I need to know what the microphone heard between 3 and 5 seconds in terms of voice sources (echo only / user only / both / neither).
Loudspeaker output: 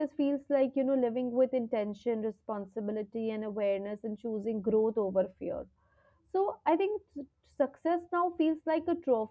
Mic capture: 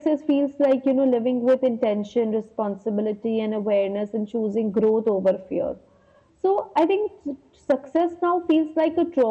echo only